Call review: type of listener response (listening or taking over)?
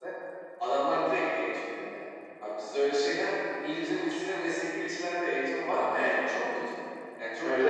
listening